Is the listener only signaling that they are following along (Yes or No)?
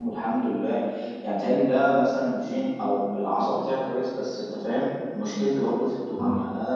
Yes